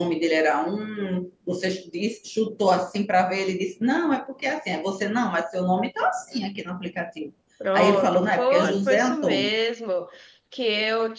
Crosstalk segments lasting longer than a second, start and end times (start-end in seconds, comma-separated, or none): 7.7-9.5